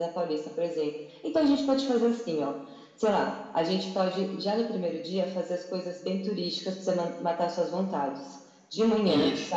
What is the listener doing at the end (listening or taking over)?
listening